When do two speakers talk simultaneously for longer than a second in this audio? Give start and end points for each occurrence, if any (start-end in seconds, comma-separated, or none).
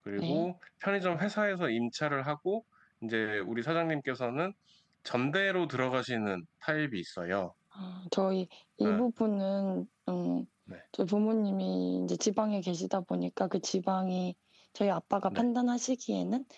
none